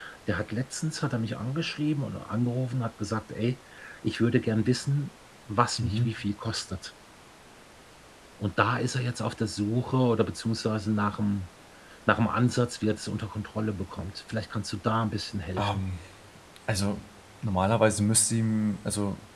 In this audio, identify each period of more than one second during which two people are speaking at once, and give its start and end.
none

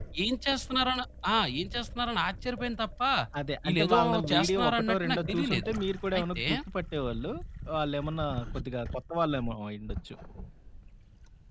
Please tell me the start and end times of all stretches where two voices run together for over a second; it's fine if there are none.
3.7-5.7

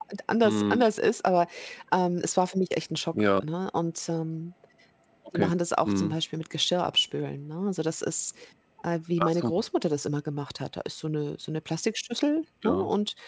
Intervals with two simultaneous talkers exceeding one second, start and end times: none

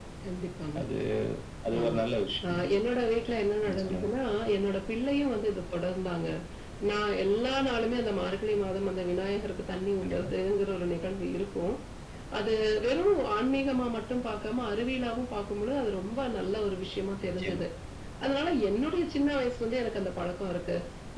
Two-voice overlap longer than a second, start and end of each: none

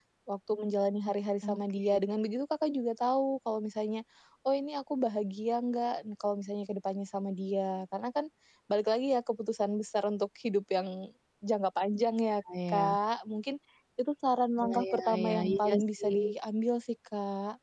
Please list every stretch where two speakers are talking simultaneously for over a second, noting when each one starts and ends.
14.6-16.1

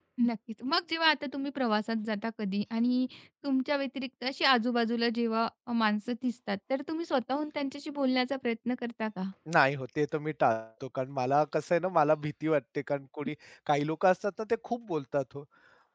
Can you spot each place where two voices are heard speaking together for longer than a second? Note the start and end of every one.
none

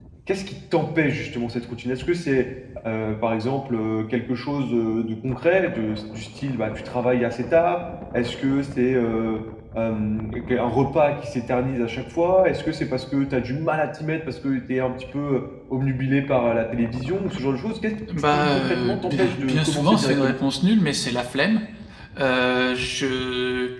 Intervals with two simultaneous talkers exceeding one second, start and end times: 18.3-20.3

